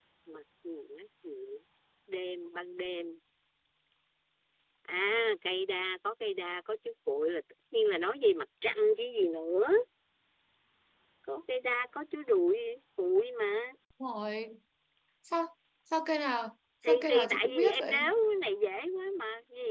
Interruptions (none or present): present